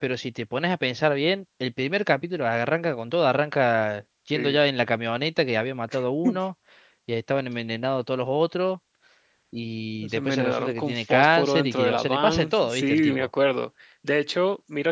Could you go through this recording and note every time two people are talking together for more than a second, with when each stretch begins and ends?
10.1-13.3

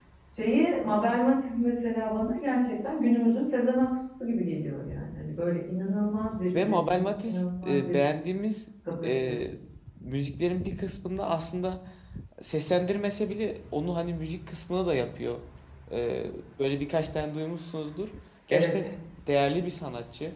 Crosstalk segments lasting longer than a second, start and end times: 6.5-8.0

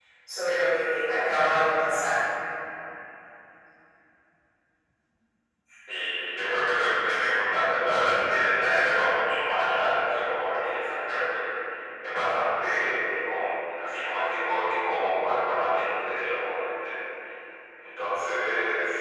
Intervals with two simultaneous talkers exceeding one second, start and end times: none

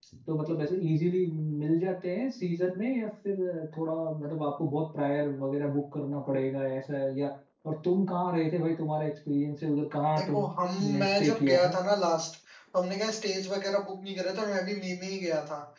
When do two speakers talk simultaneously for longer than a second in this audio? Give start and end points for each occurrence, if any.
10.2-11.7

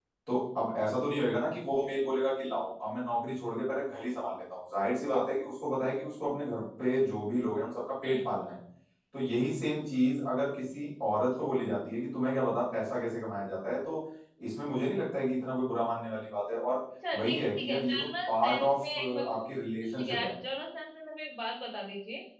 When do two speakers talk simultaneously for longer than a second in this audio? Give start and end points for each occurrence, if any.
17.1-19.4

